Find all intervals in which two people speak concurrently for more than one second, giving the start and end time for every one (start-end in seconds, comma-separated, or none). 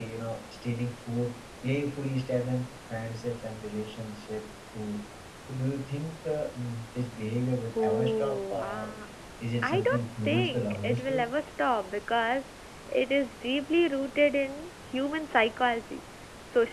7.8-9.0, 9.6-11.3